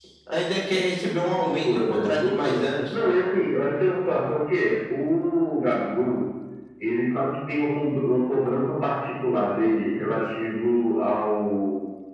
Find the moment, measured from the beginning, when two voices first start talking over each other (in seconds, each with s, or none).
1.4 s